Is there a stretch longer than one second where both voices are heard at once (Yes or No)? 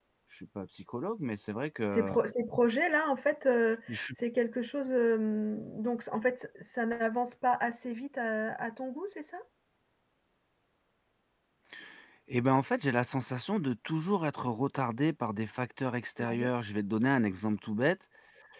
No